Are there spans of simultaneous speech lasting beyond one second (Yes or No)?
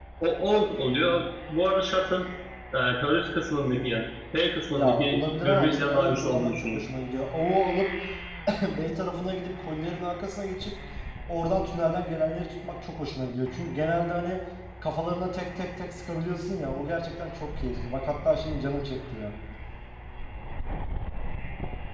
Yes